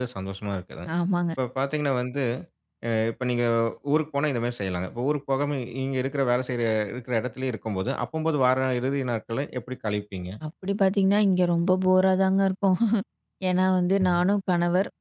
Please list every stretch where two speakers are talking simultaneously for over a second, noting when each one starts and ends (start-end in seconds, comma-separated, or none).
none